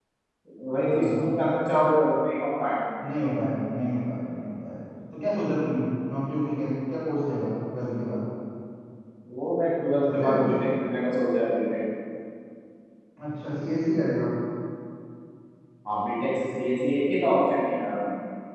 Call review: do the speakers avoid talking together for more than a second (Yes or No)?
Yes